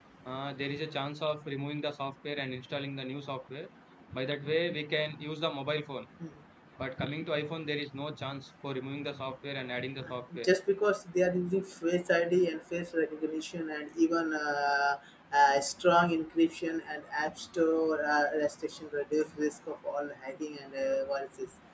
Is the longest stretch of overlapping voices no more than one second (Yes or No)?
Yes